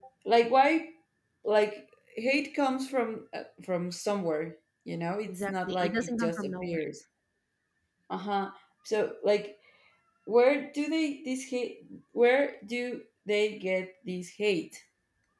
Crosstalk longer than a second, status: present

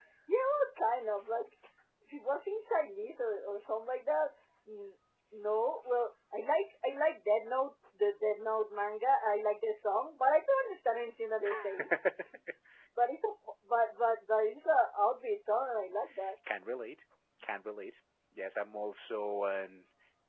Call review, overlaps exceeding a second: none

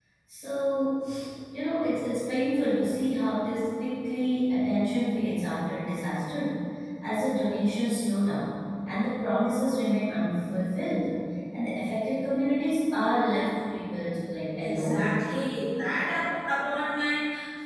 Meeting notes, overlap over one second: none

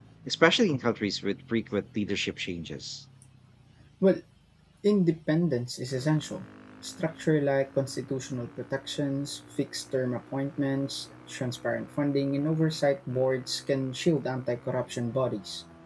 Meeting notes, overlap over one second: none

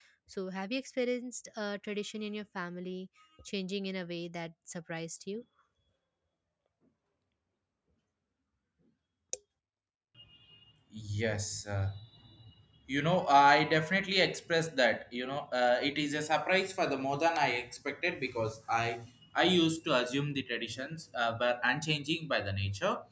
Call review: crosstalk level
none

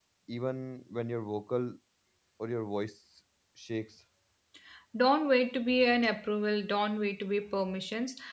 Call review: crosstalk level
none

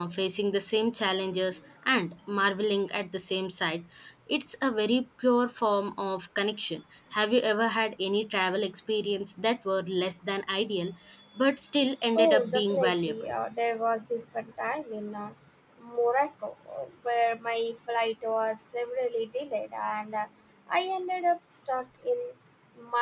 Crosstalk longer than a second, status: present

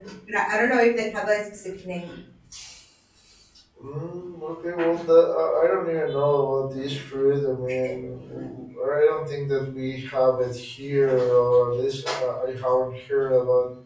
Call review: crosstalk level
none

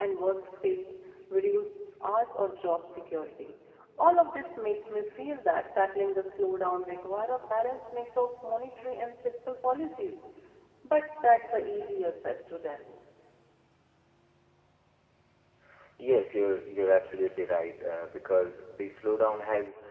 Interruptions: none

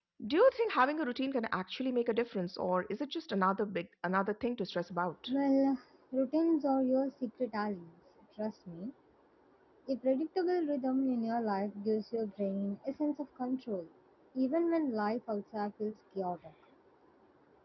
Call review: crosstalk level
none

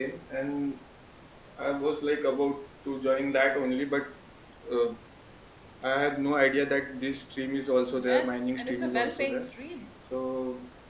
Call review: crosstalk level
present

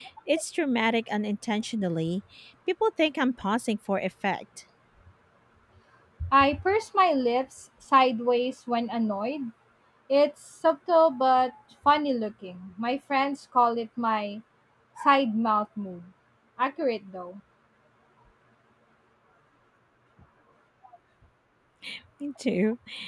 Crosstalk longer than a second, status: none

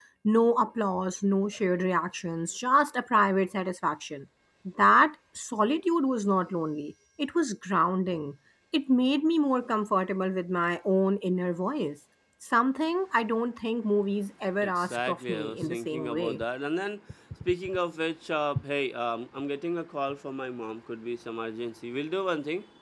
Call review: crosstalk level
present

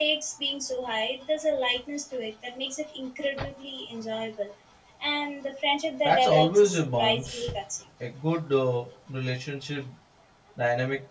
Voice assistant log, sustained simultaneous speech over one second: present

